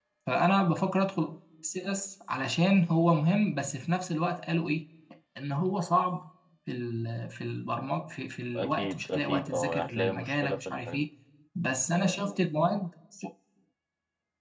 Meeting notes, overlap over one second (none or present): present